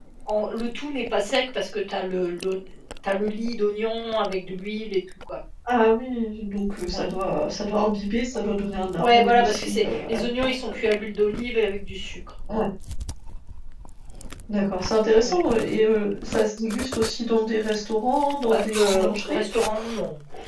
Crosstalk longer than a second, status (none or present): present